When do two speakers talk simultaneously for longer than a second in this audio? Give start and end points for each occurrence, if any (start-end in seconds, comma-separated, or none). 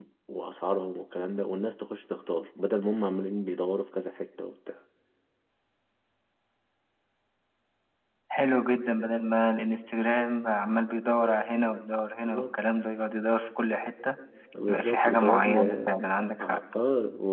14.7-16.0